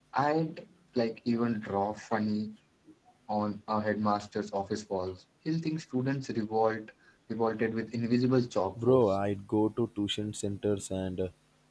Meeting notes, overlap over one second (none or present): none